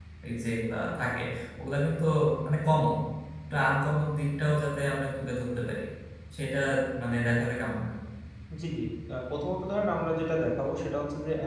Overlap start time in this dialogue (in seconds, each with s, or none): none